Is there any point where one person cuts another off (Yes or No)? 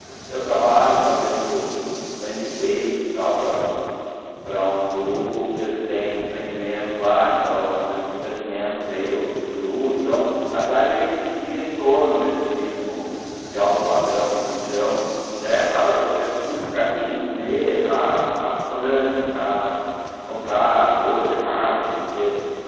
No